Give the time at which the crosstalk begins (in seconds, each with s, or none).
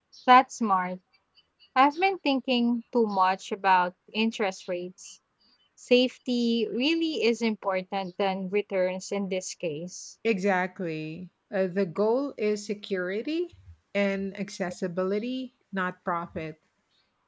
none